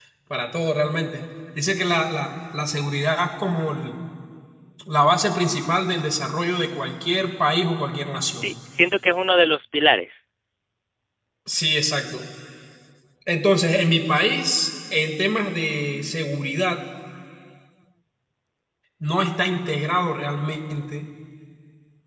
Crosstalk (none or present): none